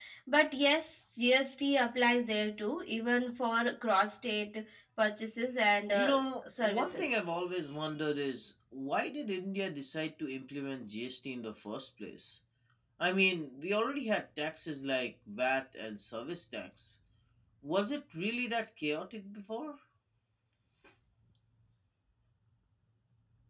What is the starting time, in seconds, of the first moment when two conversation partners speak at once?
6 s

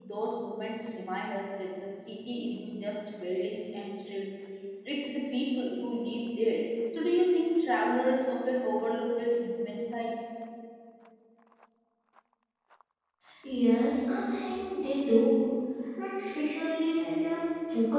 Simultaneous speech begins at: none

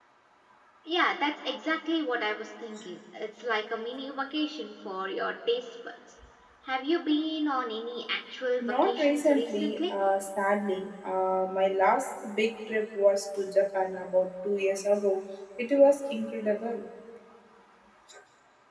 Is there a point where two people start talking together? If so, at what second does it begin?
9 s

